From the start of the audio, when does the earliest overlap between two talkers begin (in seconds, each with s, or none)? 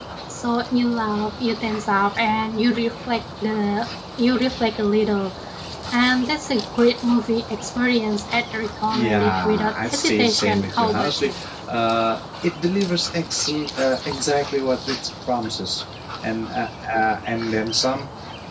8.9 s